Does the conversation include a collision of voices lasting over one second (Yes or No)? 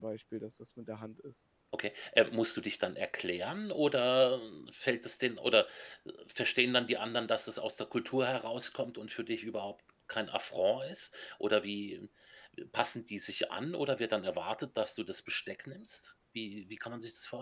No